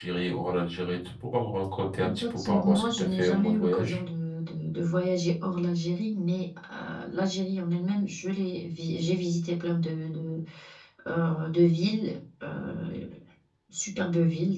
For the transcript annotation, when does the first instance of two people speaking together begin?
2.0 s

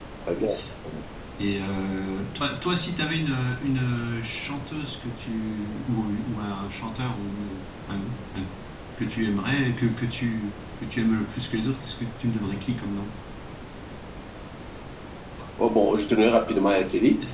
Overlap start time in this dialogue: none

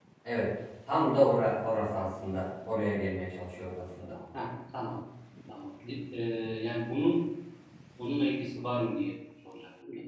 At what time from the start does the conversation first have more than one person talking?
none

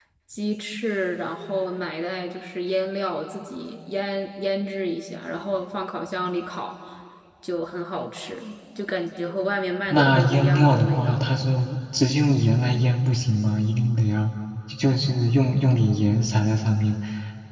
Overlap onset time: 9.9 s

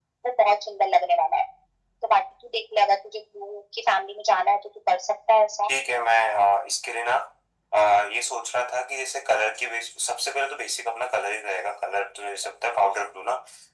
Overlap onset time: none

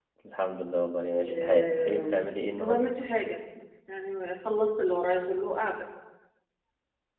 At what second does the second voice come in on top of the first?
1.2 s

